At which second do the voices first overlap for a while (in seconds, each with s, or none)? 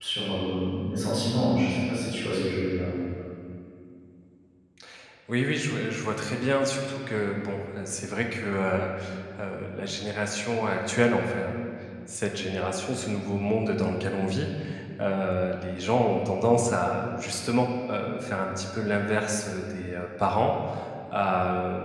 none